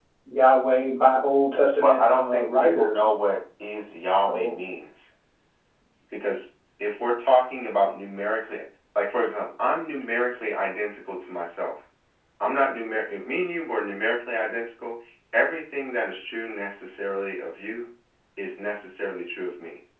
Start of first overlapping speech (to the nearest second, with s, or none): 2 s